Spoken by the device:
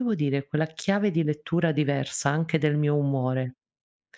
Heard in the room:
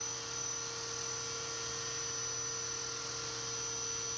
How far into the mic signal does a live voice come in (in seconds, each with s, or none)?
none